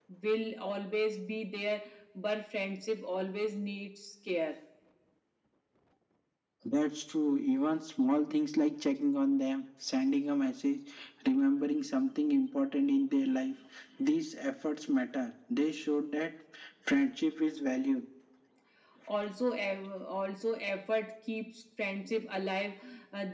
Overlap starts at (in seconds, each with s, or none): none